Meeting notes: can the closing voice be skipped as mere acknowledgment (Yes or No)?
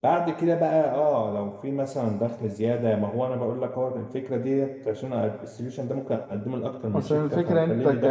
No